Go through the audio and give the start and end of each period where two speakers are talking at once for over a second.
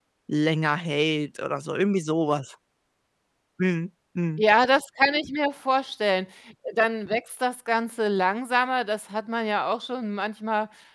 none

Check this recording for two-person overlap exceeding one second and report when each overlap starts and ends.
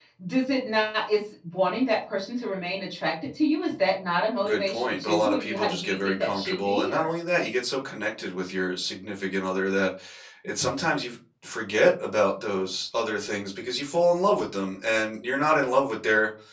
4.4-7.1

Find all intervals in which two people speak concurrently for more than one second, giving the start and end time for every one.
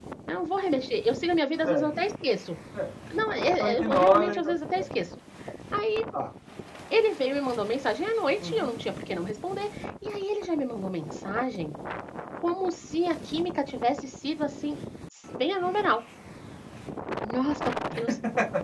3.6-4.8

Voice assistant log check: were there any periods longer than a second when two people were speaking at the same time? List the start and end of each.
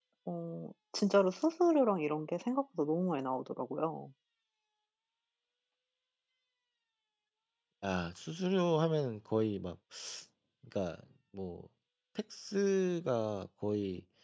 none

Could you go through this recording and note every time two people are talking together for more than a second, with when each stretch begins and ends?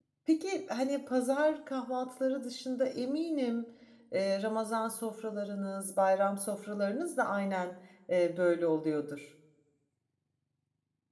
none

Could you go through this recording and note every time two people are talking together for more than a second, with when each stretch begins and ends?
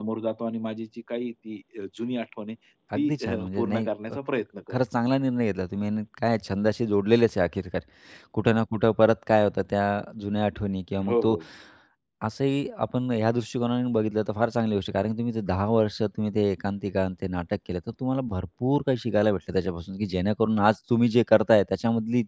3.0-4.2

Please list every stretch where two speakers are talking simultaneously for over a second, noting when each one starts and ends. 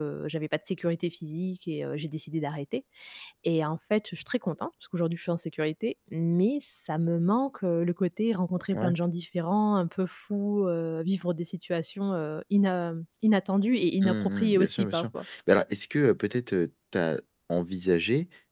14.0-15.2

